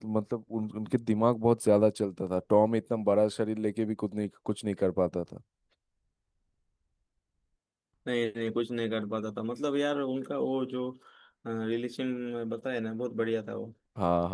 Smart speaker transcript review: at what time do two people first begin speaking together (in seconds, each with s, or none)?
none